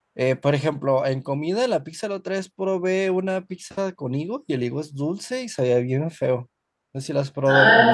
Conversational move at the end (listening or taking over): taking over